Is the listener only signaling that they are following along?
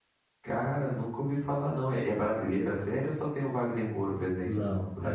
No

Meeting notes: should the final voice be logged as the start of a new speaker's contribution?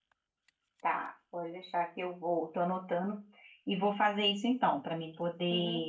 Yes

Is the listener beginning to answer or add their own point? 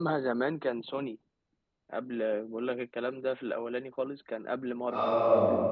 Yes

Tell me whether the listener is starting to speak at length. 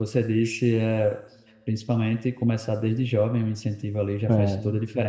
No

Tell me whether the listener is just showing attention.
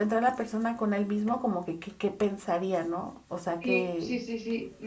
No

